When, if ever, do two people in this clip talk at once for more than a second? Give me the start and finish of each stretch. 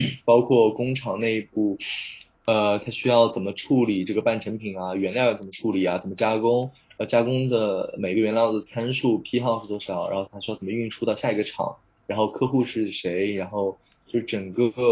none

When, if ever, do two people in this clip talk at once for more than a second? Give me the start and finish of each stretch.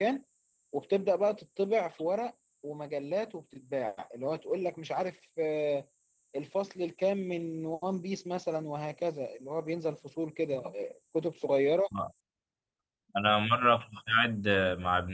none

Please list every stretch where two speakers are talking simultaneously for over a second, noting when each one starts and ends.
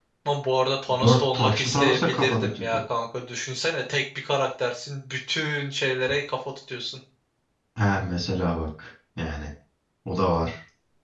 1.0-2.8

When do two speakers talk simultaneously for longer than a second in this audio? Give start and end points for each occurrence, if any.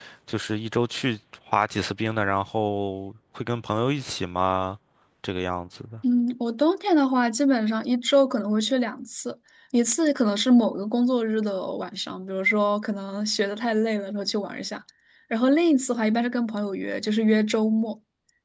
none

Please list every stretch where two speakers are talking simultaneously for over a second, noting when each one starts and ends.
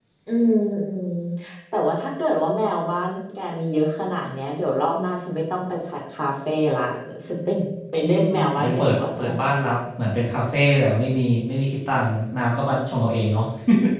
8.0-9.3

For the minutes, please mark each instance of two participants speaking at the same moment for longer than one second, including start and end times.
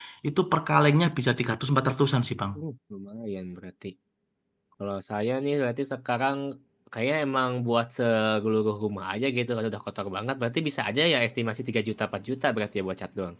none

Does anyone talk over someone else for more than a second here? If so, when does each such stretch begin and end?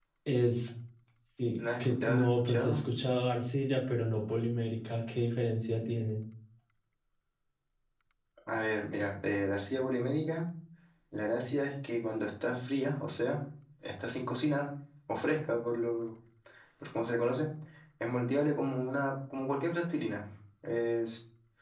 1.6-2.8

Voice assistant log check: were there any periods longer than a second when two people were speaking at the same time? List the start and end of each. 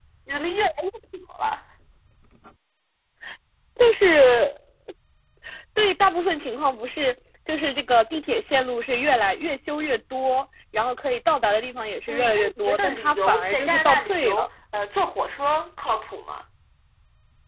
12.1-14.5

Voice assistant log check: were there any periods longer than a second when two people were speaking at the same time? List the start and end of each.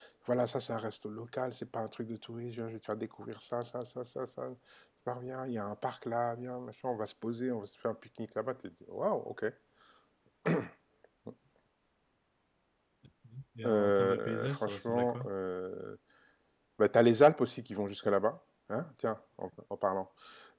13.7-15.3

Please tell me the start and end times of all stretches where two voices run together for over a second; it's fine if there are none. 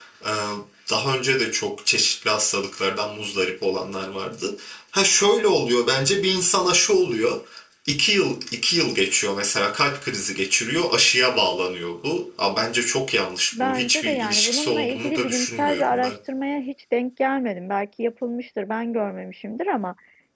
13.5-16.1

